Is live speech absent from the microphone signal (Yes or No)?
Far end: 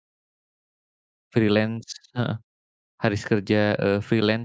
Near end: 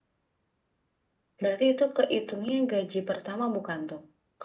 No